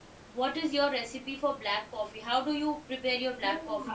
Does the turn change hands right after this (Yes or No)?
Yes